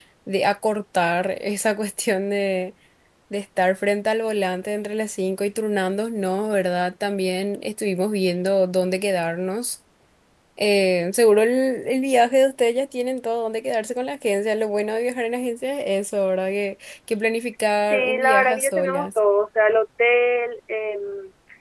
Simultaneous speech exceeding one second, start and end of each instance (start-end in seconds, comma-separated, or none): 17.8-19.2